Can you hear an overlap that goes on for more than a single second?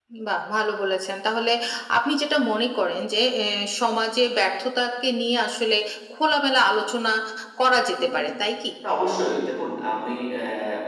No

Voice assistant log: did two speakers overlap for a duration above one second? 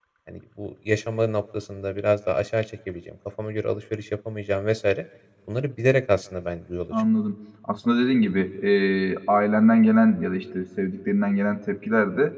No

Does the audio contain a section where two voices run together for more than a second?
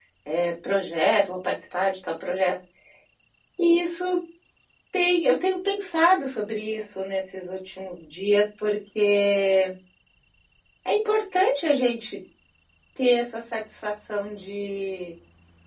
No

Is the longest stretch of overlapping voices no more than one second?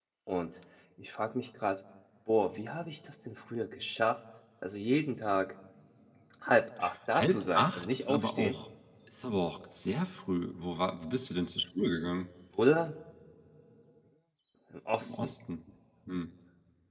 No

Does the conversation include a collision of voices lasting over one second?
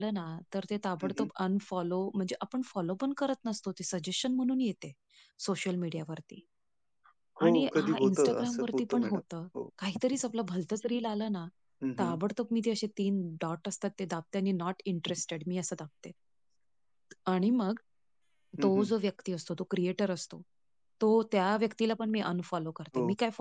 Yes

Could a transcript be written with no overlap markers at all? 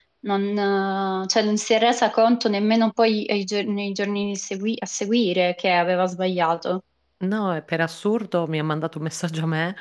Yes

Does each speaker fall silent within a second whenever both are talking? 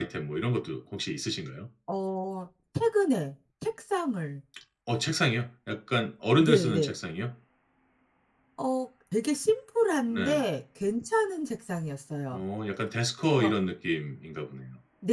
Yes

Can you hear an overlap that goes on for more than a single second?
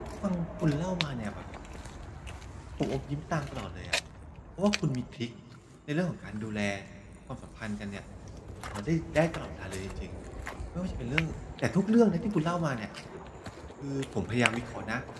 No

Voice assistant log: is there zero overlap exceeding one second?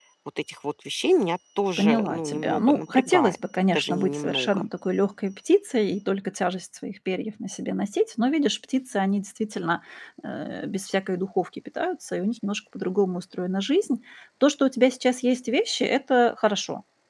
No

